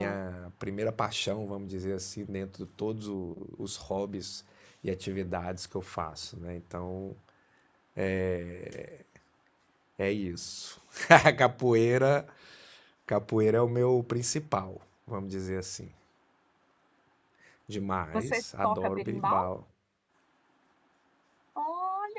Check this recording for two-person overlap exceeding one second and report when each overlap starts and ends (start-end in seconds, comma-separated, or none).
18.1-19.4